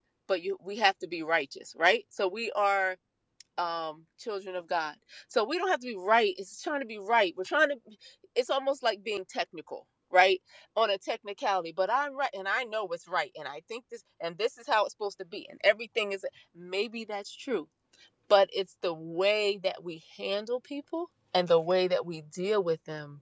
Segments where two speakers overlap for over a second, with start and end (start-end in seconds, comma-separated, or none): none